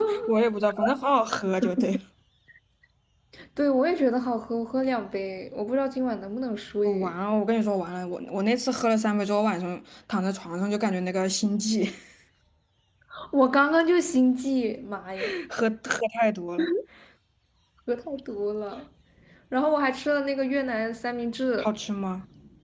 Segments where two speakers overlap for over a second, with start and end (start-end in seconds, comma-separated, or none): none